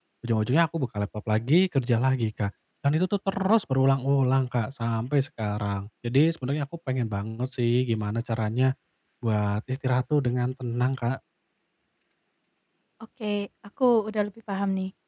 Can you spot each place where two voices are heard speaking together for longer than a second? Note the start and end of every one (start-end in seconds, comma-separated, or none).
none